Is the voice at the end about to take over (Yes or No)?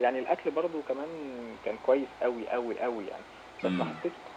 No